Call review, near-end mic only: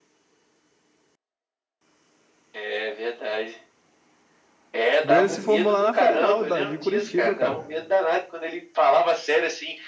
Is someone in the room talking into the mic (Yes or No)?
Yes